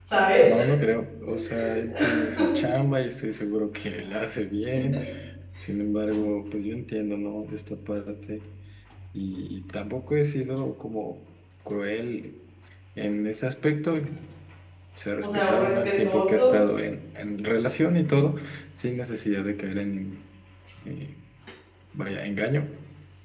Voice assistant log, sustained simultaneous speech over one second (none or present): present